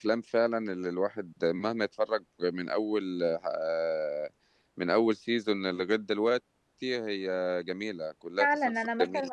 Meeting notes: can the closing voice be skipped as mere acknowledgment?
No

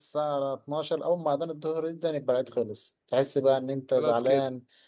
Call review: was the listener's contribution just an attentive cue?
Yes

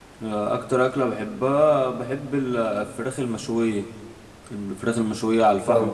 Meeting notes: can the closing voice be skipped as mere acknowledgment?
Yes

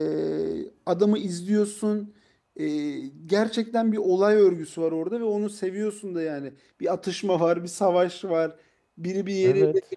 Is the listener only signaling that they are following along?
Yes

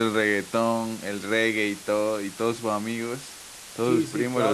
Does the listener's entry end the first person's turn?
Yes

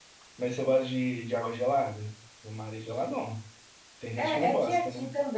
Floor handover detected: Yes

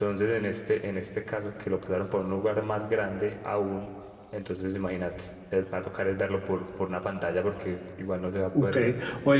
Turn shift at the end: Yes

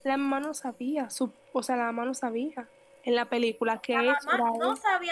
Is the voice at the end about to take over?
Yes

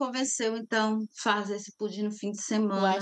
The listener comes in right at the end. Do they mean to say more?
Yes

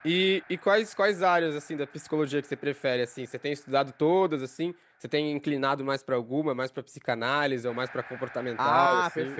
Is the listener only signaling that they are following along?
No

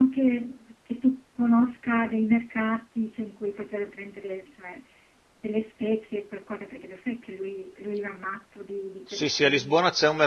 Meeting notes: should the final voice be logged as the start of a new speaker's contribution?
Yes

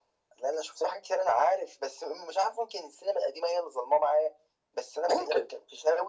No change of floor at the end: Yes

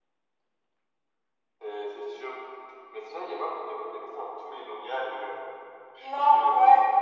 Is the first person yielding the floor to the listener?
Yes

